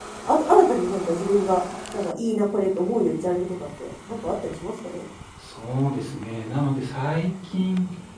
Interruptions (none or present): none